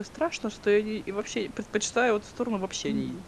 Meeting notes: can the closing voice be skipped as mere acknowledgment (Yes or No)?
No